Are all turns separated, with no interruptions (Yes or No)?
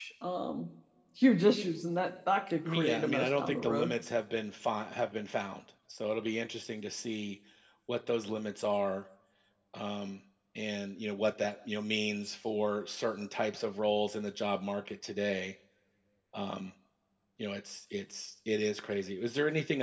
No